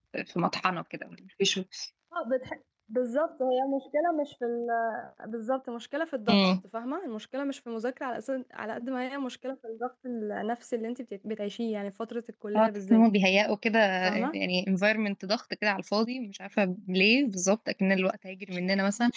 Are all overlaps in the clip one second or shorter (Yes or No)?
Yes